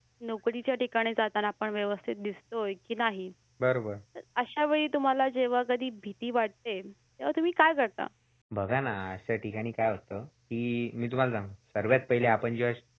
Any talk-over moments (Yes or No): No